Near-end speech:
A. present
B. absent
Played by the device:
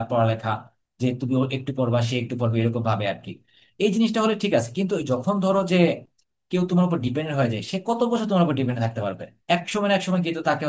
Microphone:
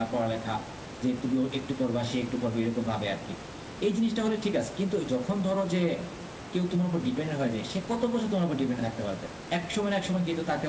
B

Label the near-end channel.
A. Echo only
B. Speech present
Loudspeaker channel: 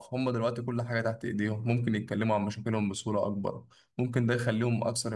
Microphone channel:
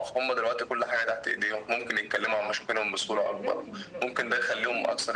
B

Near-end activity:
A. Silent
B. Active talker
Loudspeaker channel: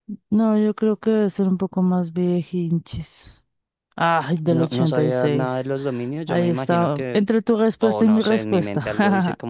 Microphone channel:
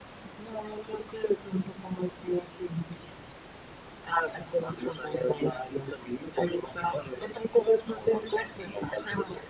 A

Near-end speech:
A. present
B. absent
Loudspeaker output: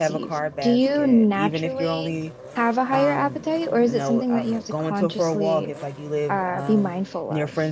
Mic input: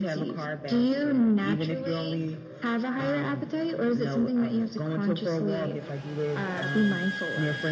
B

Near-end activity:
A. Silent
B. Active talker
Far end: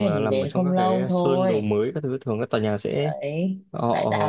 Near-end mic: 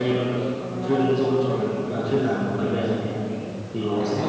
B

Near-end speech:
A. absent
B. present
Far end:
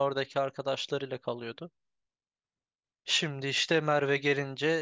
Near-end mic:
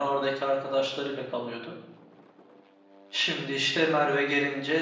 A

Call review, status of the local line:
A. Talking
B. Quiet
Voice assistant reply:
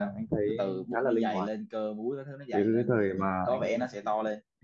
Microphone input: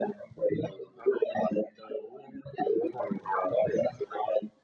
B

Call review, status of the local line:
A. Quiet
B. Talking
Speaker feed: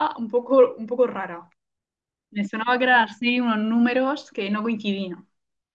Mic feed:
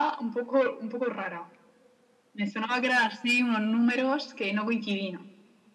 A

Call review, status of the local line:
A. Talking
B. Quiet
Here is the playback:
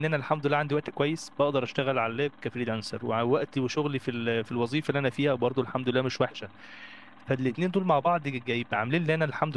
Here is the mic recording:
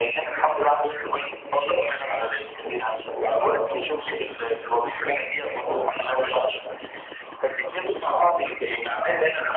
B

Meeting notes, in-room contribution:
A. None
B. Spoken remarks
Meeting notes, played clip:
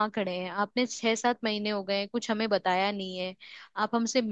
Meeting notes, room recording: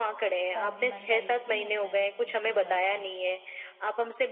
B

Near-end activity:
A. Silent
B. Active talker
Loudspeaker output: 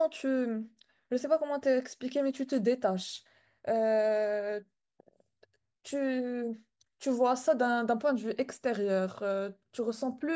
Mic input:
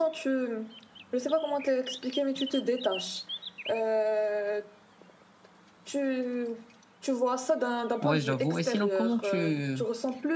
B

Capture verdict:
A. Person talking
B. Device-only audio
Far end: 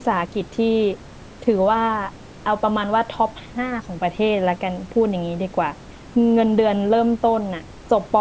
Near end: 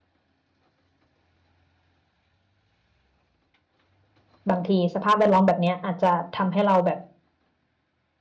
A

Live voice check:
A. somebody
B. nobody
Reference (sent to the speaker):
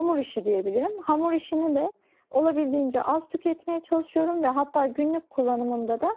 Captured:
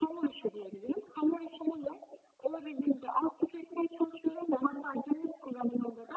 B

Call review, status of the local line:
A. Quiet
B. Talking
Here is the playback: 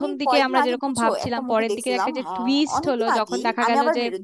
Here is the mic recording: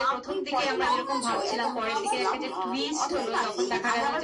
B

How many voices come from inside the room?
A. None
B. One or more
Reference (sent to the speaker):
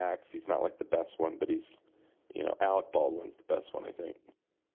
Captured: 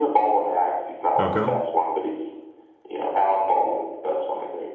B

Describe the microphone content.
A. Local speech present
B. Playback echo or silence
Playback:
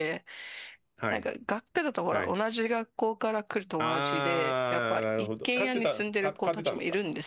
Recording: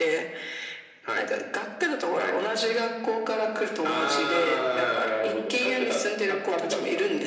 B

